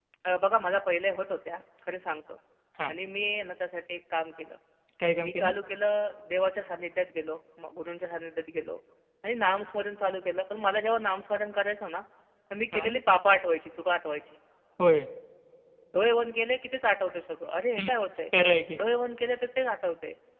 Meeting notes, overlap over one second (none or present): none